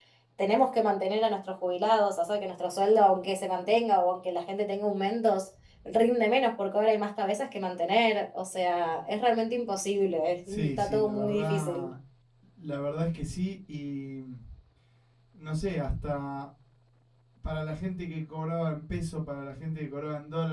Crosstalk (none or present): present